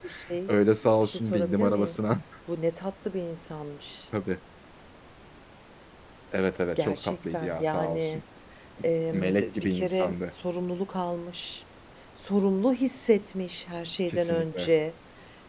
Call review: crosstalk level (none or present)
present